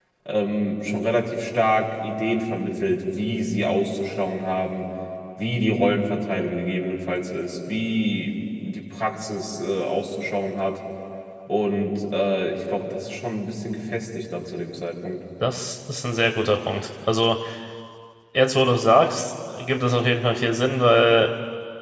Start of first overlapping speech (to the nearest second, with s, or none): none